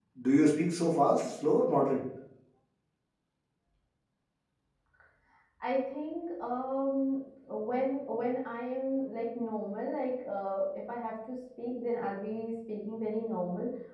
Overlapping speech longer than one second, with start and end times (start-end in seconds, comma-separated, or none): none